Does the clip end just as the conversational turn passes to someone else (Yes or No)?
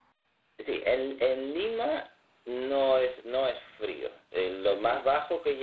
No